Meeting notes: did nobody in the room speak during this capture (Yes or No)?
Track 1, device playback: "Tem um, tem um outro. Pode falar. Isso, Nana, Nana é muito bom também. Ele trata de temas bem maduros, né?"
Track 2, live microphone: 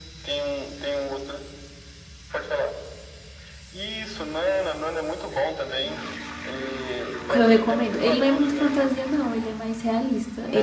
No